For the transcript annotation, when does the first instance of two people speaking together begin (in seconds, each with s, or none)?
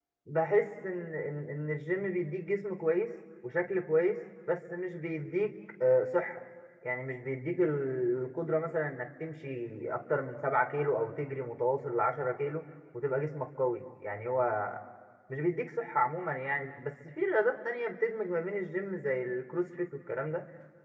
none